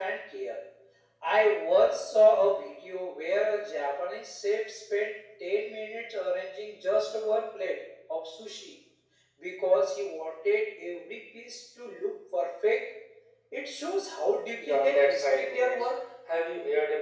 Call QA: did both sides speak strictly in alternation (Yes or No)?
No